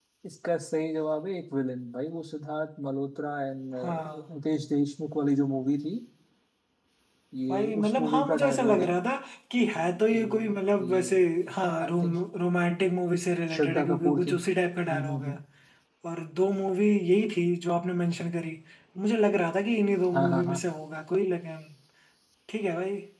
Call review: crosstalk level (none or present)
present